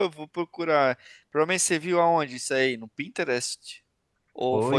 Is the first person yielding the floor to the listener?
Yes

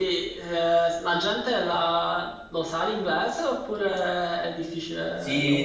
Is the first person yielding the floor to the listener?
Yes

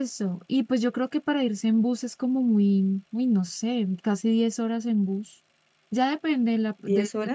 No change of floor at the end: Yes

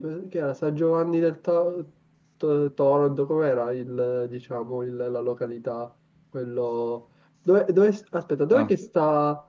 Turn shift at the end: No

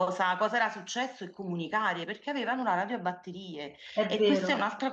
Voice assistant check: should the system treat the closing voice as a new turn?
No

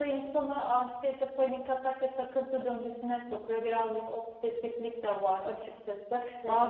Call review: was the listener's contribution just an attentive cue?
Yes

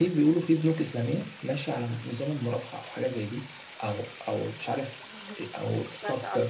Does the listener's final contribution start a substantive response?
No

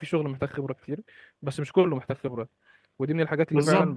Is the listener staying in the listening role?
Yes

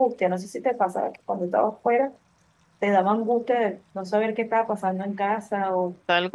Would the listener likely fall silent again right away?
No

